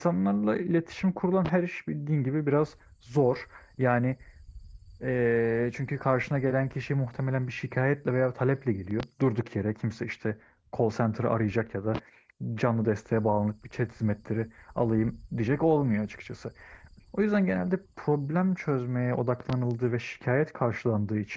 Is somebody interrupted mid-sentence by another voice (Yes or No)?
No